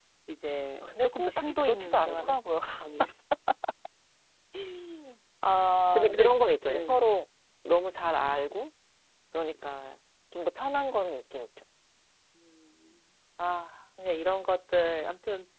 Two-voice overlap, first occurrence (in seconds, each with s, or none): 0.8 s